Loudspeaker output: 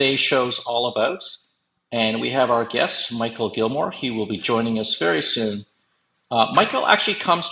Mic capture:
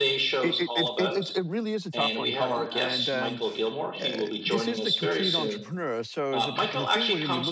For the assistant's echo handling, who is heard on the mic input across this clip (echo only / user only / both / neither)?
both